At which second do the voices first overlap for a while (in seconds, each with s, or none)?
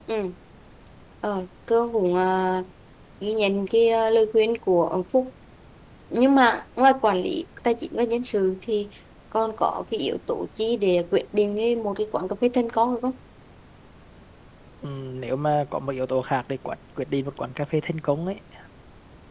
none